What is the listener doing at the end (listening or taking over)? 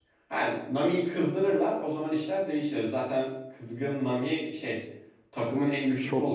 taking over